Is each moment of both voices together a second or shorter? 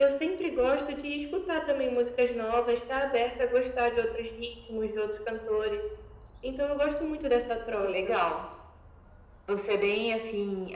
Yes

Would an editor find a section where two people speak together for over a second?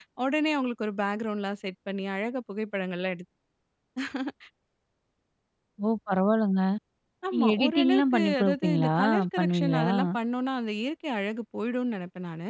Yes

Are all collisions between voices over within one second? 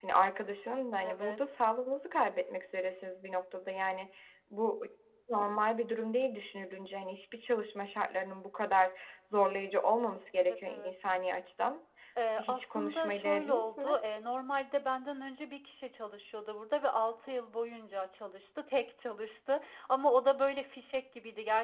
No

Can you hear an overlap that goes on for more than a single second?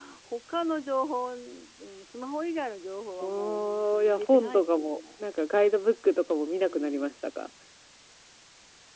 Yes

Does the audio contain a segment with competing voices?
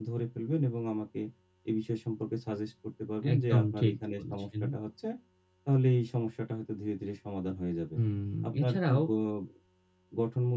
Yes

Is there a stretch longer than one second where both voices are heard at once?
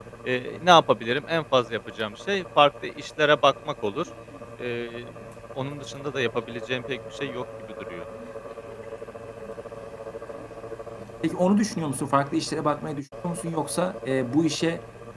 No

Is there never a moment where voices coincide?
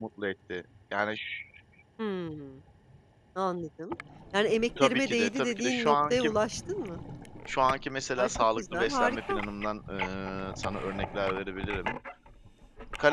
No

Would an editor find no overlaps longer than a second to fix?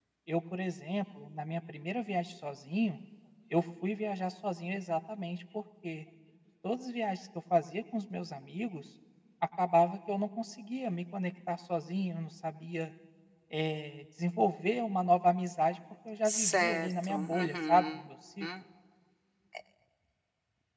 No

